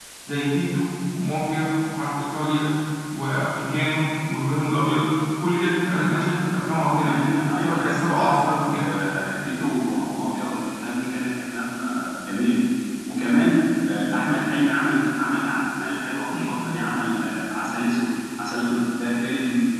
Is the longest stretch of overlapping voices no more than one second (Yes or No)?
No